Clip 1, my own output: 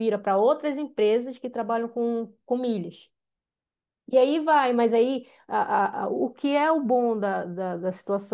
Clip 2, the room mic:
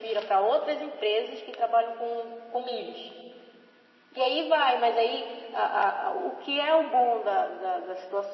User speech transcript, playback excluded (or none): none